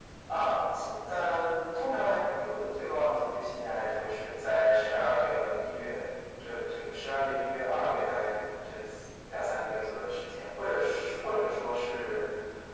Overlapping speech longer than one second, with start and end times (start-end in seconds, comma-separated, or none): none